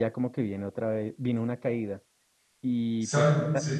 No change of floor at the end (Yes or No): Yes